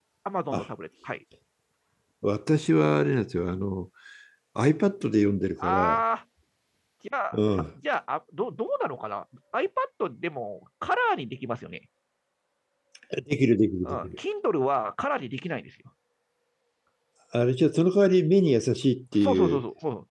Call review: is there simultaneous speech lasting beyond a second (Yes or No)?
No